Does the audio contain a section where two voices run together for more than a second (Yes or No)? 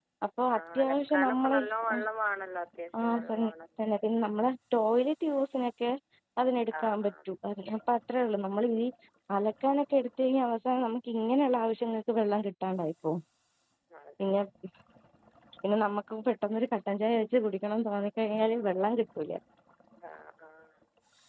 Yes